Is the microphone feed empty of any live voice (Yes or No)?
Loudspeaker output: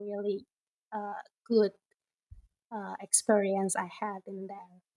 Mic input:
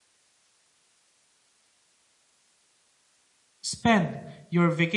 No